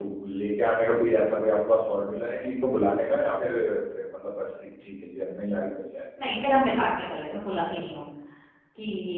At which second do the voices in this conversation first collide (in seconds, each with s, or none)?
none